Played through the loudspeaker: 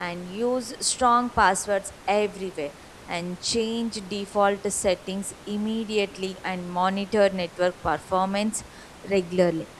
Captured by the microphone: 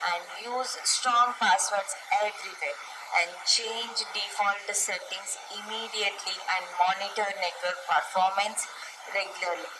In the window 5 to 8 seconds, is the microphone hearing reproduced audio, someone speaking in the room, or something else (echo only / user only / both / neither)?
echo only